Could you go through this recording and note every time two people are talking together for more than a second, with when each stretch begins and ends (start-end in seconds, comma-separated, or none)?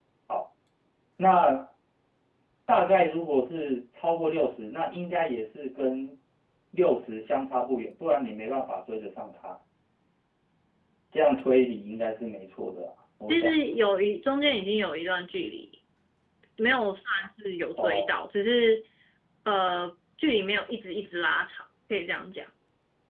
none